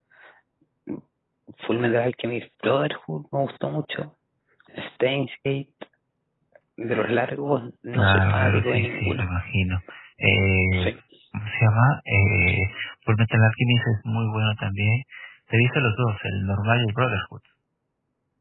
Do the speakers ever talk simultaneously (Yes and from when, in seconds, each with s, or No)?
Yes, from 7.9 s